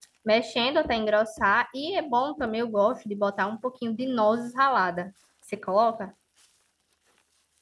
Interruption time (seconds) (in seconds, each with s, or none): none